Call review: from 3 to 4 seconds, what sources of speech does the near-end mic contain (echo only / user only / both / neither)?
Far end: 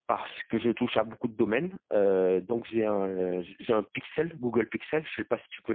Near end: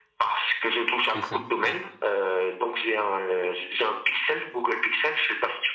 echo only